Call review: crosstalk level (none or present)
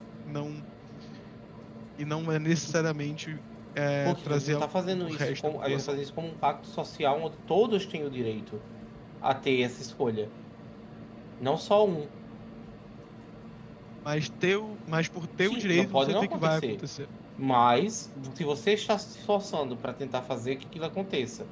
present